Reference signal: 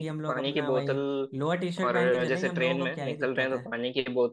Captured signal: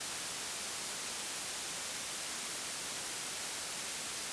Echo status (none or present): none